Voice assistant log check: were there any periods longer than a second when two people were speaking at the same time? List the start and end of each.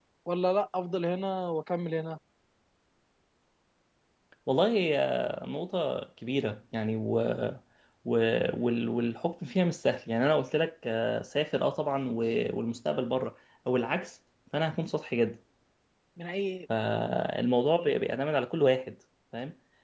none

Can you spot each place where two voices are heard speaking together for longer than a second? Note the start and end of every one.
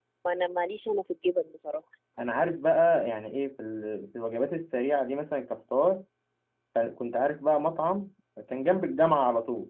none

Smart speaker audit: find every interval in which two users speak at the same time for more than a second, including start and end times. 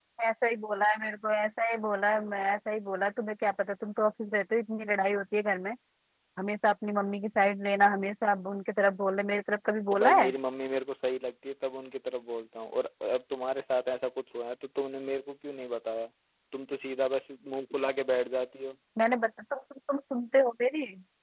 none

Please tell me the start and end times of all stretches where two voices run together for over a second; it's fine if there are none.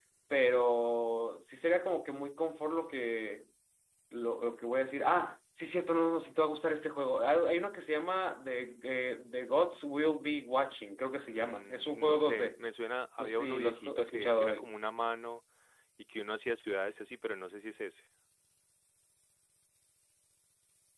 11.3-12.5, 13.2-14.5

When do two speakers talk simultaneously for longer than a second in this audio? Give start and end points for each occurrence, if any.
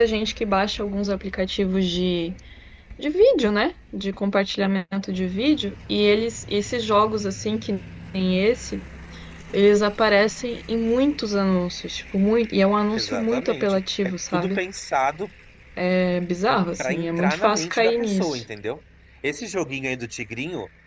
13.0-14.6, 16.8-18.4

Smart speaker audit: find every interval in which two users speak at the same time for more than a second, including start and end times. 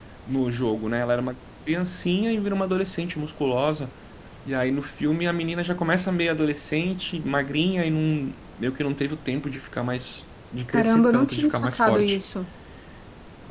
10.7-12.2

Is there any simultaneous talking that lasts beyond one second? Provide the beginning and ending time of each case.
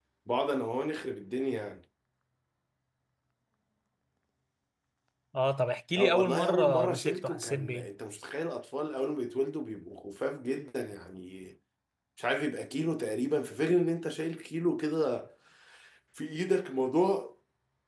6.0-7.9

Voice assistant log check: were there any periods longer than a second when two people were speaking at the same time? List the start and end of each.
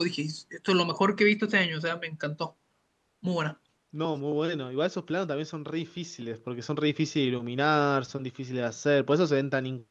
none

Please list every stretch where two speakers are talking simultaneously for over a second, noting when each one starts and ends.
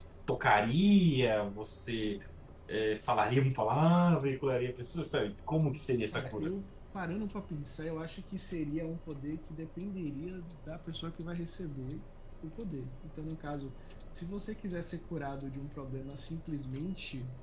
none

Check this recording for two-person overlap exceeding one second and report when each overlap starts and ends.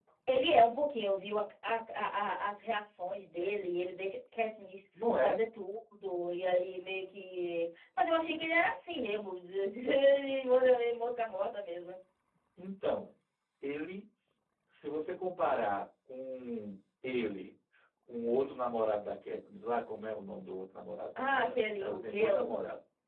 21.2-22.5

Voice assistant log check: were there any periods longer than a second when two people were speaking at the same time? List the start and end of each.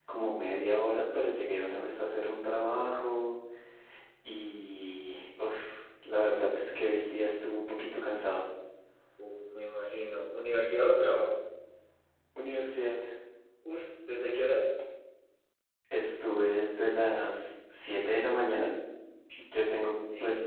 none

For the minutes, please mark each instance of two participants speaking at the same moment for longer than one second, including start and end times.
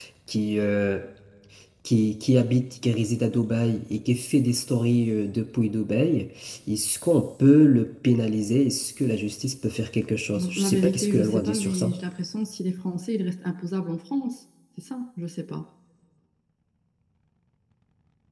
10.3-11.9

